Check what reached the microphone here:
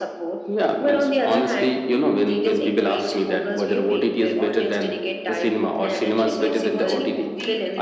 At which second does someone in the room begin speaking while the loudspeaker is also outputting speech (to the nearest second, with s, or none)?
6 s